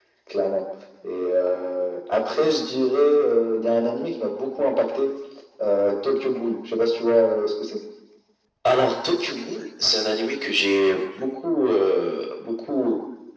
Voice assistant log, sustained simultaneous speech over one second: none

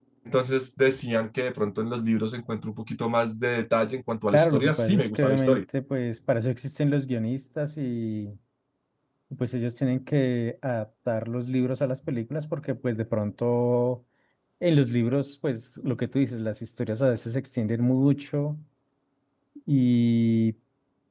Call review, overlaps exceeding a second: present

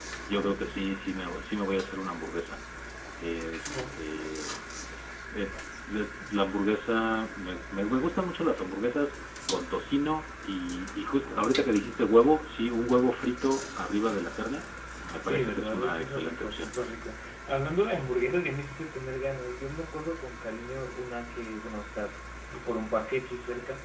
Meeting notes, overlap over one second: present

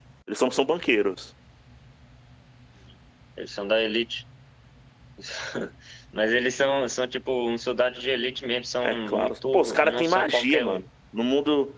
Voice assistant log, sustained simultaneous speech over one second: present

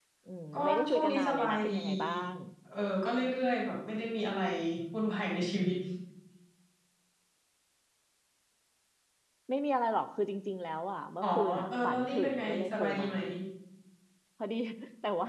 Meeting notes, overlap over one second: present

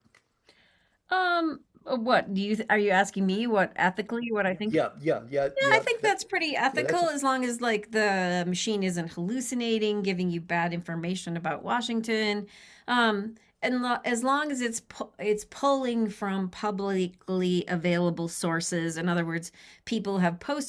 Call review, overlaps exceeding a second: none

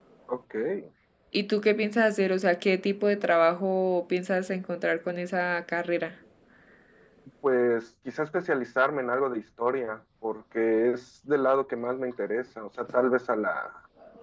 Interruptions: none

